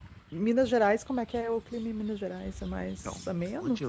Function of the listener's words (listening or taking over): taking over